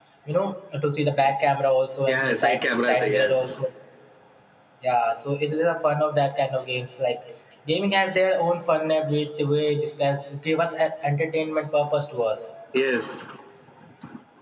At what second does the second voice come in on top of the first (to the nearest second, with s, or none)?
2 s